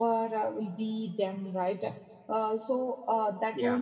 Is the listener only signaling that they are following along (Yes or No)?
Yes